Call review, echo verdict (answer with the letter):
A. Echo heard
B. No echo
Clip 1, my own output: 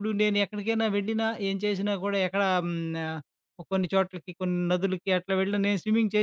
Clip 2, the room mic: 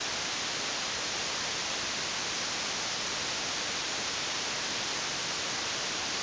B